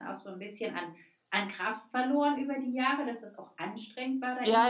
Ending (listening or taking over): taking over